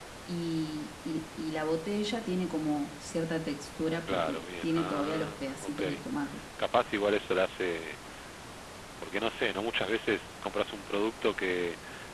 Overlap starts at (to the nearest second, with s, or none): 4 s